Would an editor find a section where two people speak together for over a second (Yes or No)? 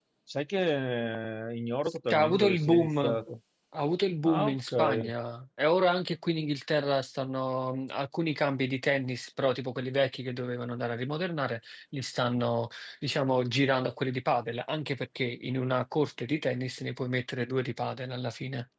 Yes